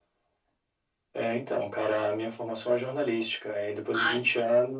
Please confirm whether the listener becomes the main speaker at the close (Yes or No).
No